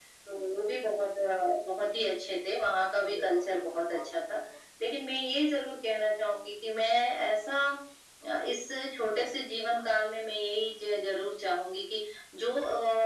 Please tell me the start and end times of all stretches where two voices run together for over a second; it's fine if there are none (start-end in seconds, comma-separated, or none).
3.1-4.4